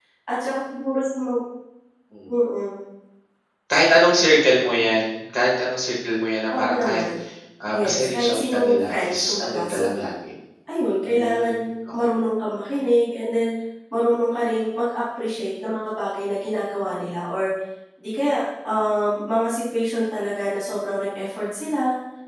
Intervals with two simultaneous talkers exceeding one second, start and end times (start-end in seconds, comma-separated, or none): 7.7-9.9